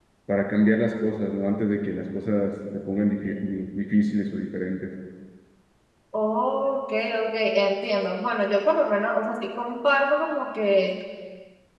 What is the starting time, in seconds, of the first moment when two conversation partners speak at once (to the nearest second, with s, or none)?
none